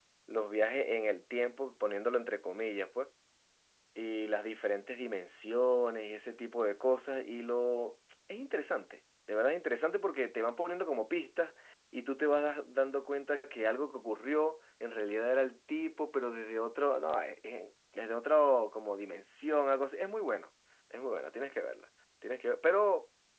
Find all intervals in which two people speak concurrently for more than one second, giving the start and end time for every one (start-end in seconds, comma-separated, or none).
none